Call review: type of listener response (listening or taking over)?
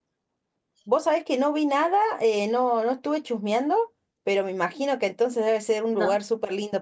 listening